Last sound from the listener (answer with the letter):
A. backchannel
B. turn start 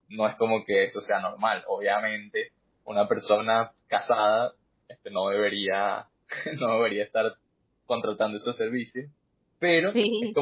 A